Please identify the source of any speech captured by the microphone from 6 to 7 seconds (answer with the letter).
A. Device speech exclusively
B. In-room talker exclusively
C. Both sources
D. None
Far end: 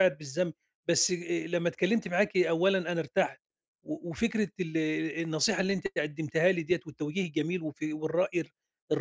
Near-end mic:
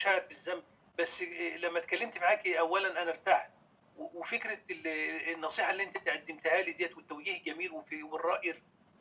A